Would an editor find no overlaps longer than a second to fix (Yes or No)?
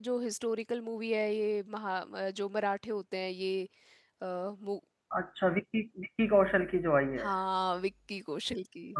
Yes